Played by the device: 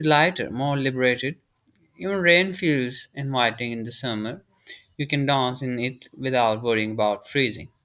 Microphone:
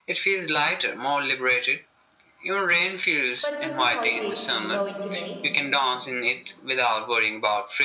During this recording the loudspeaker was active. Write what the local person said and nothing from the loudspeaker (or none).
but winter holidays feel more intimate